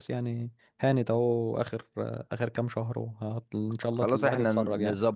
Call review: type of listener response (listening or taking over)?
taking over